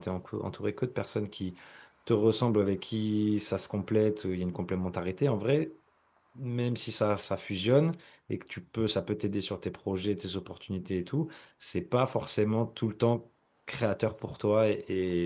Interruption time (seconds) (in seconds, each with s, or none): none